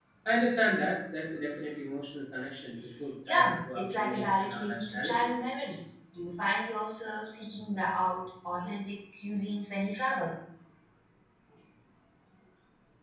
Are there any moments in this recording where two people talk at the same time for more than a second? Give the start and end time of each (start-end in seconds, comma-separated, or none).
3.3-5.3